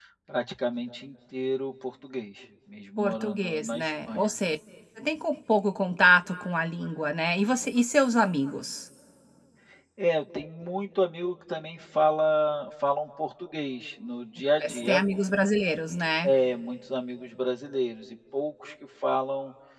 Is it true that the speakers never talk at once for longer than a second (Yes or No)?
No